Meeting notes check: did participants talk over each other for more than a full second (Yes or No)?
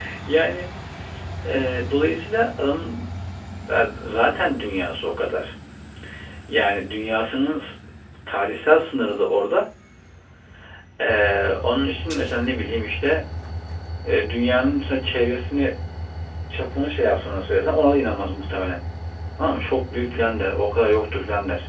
No